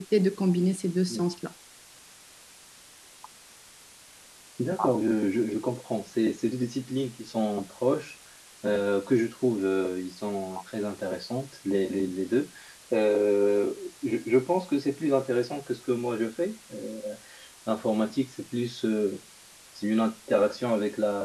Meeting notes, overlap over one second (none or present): none